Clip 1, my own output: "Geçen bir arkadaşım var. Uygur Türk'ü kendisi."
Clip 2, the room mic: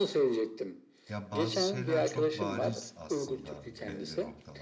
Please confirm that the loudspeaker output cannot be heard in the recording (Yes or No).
No